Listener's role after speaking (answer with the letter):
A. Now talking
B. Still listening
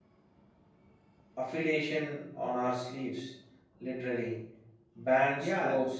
A